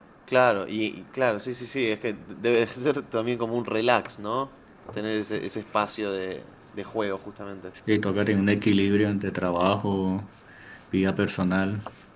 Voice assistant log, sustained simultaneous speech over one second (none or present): none